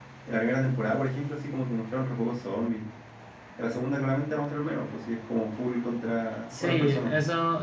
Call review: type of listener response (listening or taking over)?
taking over